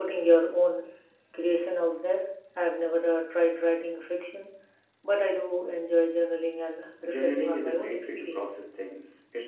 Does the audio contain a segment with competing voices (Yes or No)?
Yes